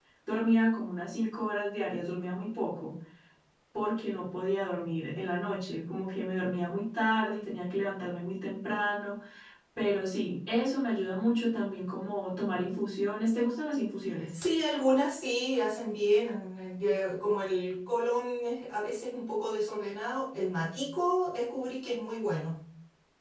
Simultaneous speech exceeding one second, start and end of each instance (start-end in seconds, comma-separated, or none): none